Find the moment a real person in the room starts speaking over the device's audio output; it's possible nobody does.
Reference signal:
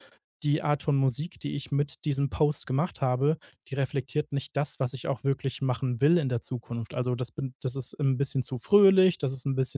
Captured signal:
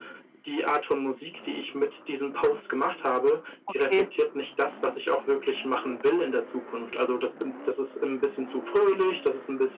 3.7 s

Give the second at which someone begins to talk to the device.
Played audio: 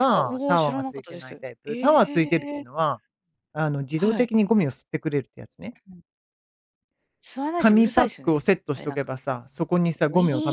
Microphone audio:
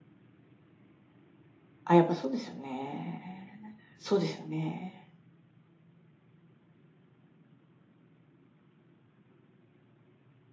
1.8 s

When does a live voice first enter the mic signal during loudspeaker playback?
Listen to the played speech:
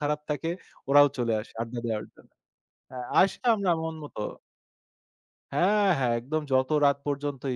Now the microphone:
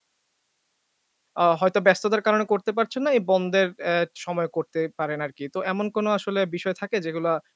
1.4 s

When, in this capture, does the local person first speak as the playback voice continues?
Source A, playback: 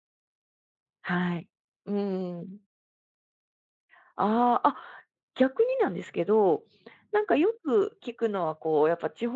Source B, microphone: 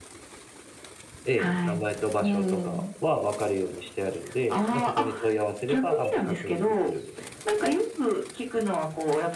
1.2 s

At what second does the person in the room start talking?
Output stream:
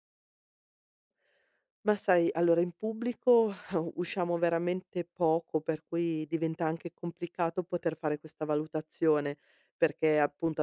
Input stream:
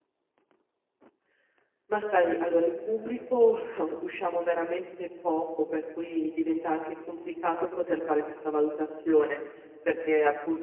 none

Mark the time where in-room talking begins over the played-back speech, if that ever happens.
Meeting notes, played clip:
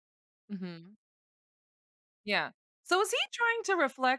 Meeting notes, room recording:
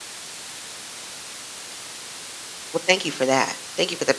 2.7 s

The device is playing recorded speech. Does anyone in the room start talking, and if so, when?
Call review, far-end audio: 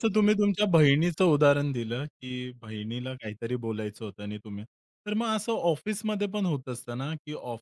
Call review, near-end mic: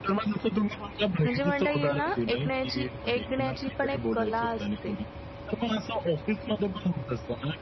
1.2 s

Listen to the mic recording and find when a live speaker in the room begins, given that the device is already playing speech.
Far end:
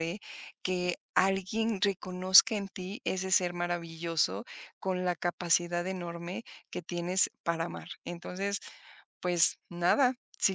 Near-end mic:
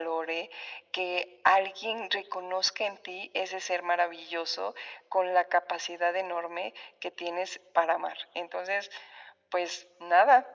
none

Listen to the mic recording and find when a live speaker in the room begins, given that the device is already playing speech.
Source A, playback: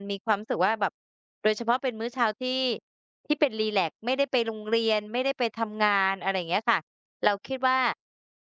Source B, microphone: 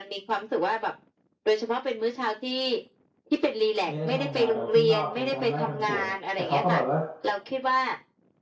3.9 s

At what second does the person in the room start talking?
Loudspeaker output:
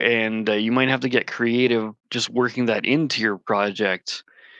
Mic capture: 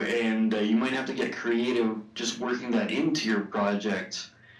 none

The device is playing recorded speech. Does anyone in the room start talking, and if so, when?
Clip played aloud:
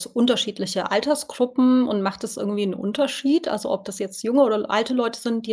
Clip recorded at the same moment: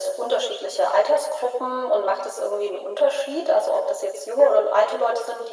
none

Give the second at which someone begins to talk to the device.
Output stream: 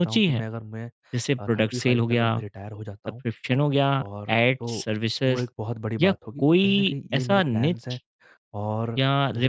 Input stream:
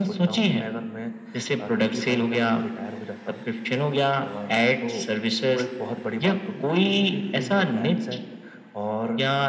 none

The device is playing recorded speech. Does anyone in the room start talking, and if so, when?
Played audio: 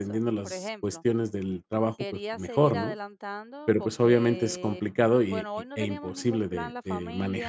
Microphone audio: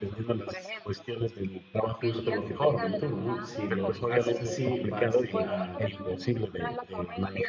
1.8 s

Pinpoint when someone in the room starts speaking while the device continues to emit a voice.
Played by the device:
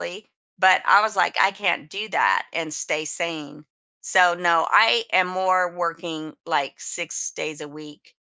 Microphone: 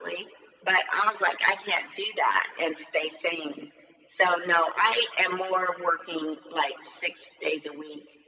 none

